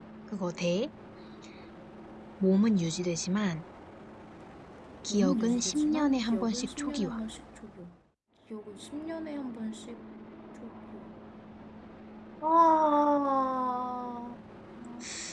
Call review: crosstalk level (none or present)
present